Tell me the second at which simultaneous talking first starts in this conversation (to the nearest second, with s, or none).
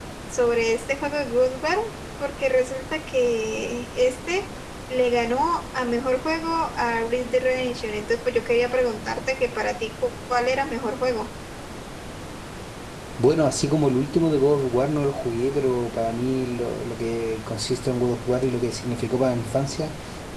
none